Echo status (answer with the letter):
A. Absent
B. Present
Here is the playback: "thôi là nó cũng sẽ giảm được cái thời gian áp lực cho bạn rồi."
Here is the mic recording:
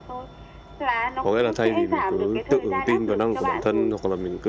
B